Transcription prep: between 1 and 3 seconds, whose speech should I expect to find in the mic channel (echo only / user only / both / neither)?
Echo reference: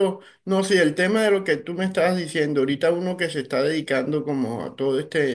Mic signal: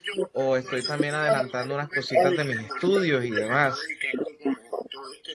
both